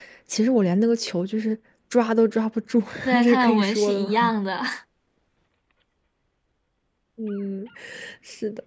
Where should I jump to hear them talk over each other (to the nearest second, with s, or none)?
3 s